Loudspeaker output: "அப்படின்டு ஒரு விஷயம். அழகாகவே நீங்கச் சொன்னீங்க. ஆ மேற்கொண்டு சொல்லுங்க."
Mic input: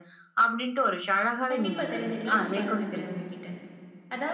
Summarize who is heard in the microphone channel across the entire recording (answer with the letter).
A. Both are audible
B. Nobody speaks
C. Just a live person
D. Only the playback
A